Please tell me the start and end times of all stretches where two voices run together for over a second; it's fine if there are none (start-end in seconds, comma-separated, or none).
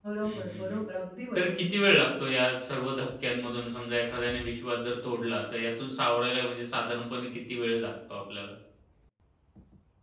none